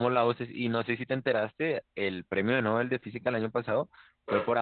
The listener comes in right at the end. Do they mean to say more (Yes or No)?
No